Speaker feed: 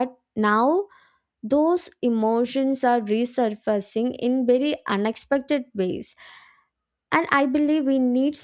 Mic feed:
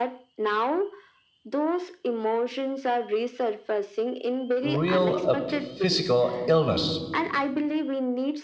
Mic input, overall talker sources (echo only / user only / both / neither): both